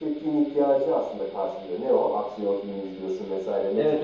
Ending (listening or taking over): taking over